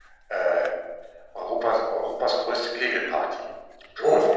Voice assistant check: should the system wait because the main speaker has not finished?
No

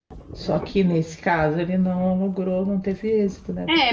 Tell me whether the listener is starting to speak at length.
Yes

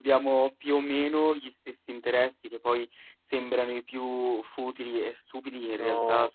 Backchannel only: Yes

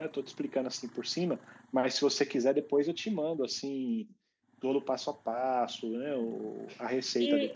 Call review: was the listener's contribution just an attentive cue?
No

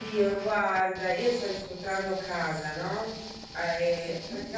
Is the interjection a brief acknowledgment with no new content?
Yes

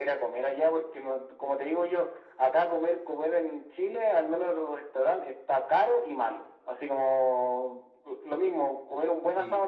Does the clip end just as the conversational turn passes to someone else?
No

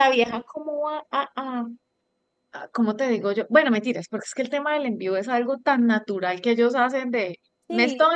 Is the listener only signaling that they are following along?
Yes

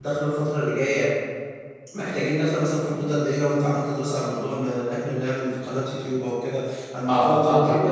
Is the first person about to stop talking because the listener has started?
Yes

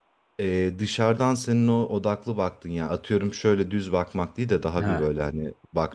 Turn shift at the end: No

